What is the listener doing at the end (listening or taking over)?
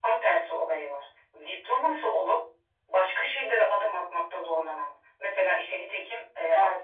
listening